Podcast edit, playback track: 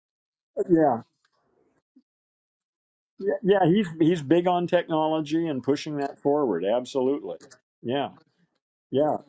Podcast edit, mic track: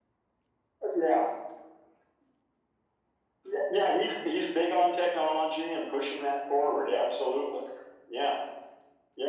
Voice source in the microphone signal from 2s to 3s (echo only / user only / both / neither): neither